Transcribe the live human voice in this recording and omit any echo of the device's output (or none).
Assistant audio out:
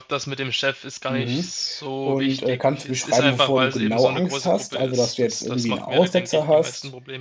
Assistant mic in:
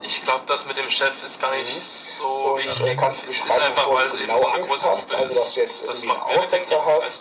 dann